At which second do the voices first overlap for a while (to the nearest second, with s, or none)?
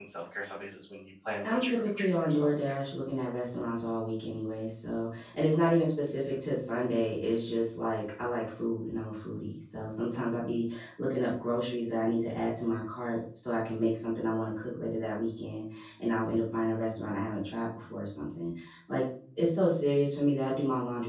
1 s